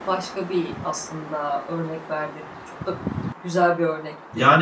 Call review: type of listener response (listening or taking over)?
taking over